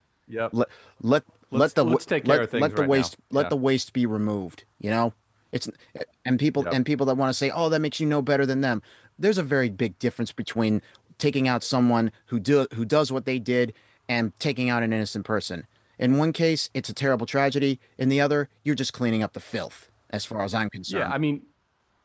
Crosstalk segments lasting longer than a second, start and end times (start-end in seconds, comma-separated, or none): 1.5-3.5